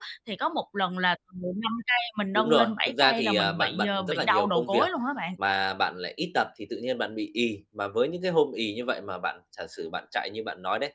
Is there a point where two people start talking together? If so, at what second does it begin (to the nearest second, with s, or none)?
2 s